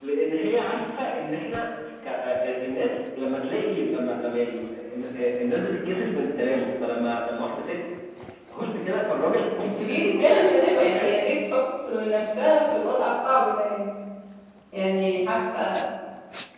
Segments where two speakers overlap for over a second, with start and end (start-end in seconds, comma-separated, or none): 9.6-11.1